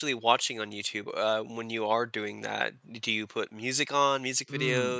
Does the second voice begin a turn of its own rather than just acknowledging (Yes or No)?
Yes